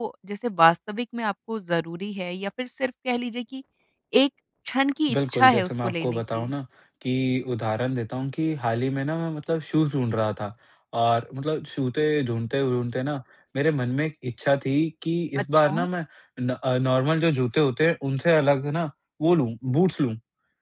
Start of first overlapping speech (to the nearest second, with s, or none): 5 s